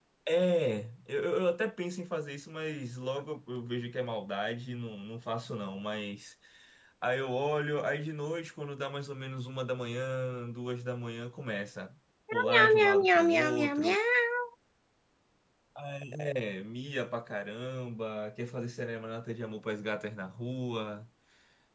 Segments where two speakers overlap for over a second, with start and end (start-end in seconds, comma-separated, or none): 12.3-14.0